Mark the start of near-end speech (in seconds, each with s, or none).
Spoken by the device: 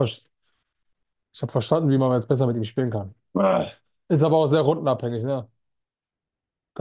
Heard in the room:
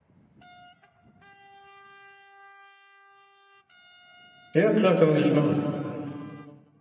4.5 s